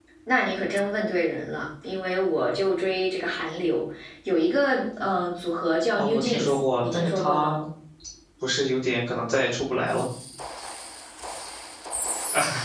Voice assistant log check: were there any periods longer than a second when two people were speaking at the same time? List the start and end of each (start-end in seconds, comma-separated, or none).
5.9-7.6